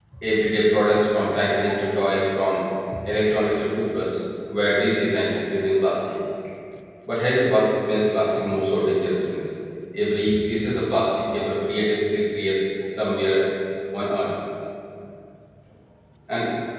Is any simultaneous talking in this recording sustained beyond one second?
No

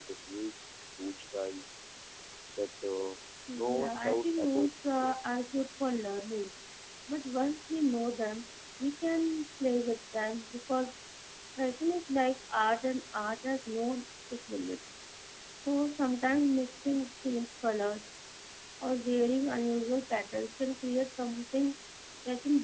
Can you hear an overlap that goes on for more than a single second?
Yes, from 3.5 s

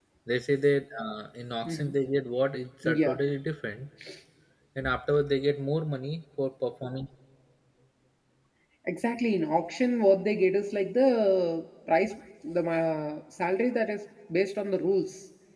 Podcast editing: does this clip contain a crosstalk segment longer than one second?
No

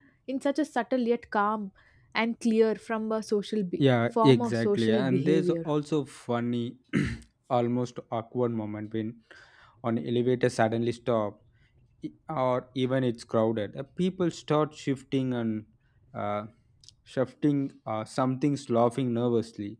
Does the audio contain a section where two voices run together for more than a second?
Yes, from 4.2 s

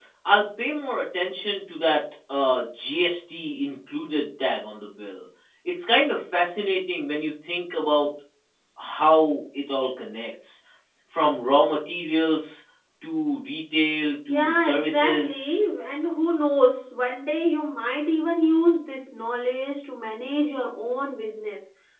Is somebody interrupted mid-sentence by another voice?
Yes, from 14.3 s

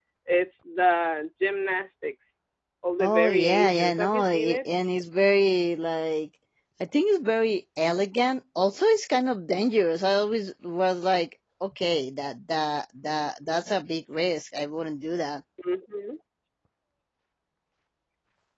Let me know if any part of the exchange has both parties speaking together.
Yes, from 3.0 s

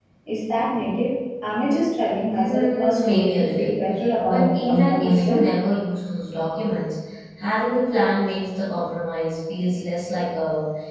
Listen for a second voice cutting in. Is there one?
Yes, from 2.4 s

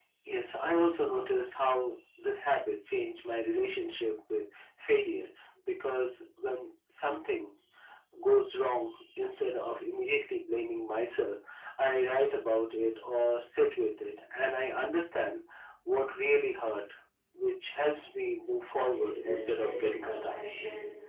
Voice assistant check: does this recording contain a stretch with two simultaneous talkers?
Yes, from 18.8 s

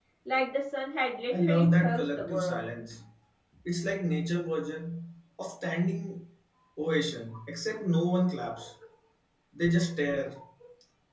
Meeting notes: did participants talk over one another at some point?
Yes, from 1.3 s

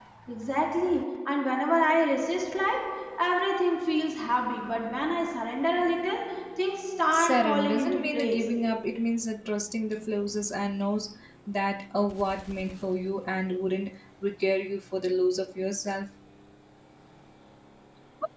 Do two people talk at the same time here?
Yes, from 7.1 s

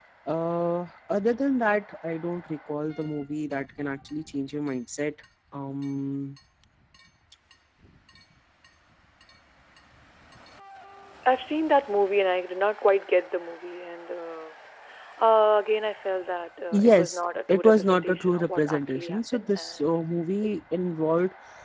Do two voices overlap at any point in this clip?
Yes, from 16.7 s

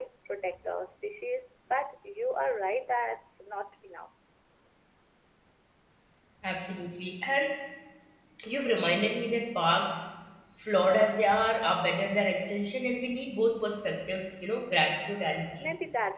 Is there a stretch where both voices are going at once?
No

